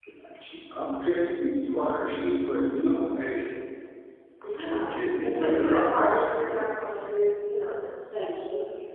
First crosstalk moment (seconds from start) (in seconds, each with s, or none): 4.7 s